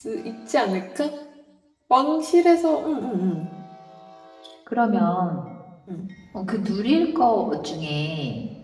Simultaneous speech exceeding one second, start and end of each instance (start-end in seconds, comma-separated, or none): none